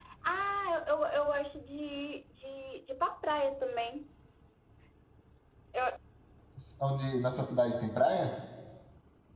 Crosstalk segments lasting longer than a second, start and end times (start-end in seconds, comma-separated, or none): none